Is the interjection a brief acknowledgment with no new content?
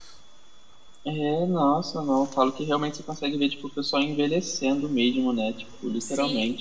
No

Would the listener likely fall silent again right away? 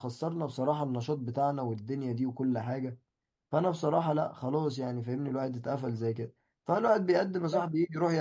Yes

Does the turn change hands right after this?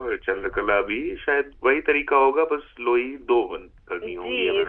Yes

